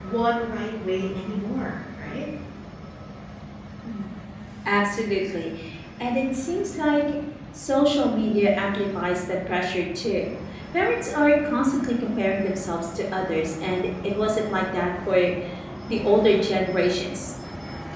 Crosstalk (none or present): none